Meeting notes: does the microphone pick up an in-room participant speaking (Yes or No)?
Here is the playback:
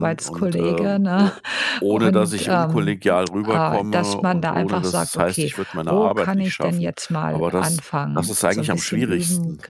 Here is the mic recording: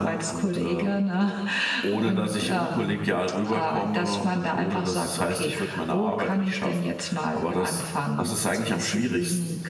No